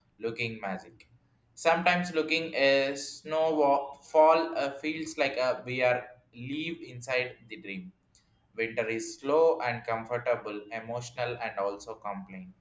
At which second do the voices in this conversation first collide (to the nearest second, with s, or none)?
none